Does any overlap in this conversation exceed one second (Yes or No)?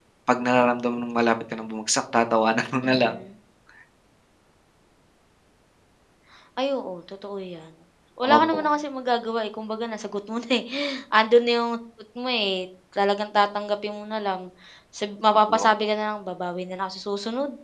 No